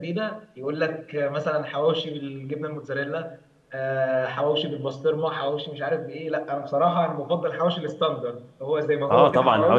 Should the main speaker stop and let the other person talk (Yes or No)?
Yes